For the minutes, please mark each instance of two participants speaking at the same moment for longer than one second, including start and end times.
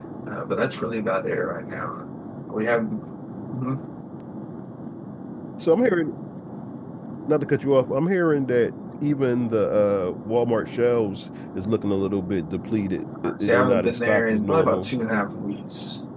13.4-14.9

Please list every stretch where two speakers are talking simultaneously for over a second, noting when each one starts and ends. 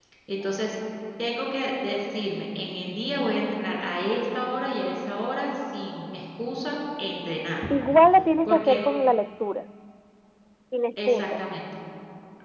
none

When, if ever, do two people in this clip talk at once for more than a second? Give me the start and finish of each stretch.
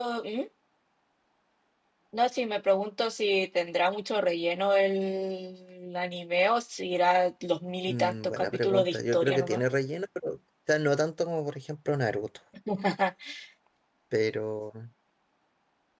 7.9-9.6

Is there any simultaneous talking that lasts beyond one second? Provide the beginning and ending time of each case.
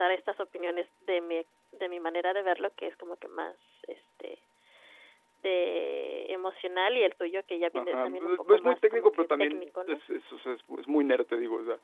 7.7-10.0

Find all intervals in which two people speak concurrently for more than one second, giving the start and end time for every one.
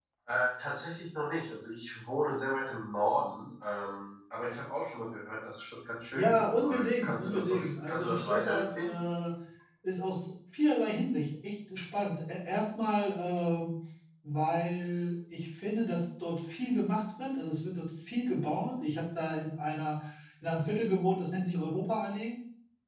6.1-9.0

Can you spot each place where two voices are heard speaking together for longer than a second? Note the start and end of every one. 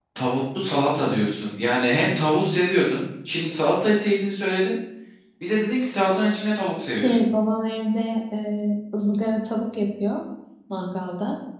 none

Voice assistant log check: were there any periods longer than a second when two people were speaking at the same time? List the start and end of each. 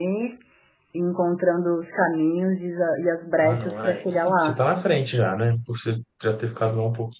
3.4-4.6

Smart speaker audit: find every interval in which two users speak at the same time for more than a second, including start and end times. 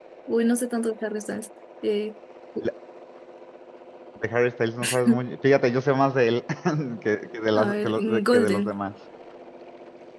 7.5-8.8

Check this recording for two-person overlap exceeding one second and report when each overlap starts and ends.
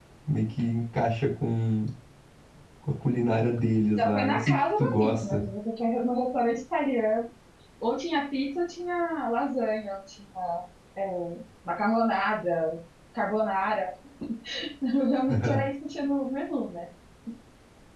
4.0-5.5

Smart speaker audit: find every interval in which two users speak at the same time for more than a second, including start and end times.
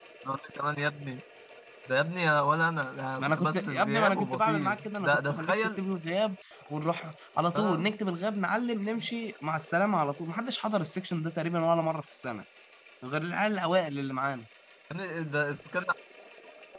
3.2-5.8

